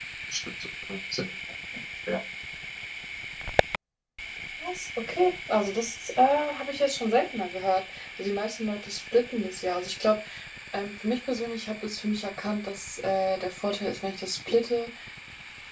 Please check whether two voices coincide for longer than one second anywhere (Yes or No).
No